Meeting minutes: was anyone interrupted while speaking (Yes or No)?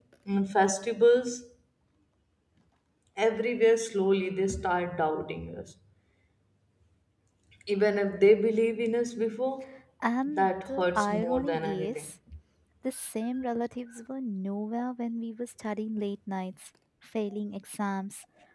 Yes